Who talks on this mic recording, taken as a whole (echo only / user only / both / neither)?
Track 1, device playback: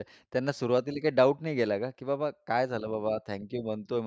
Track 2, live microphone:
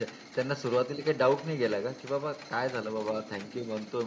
echo only